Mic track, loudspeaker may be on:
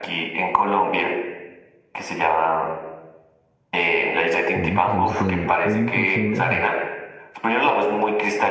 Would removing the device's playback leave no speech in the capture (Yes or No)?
No